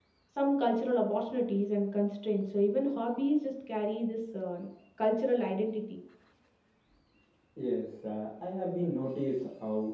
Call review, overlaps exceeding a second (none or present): none